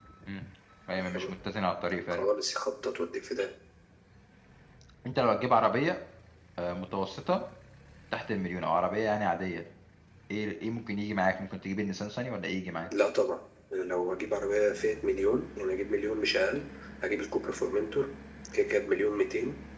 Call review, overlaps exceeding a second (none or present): none